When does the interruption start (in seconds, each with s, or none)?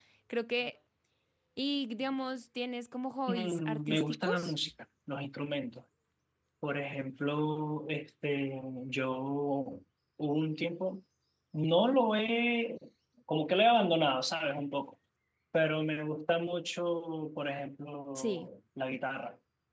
3.3 s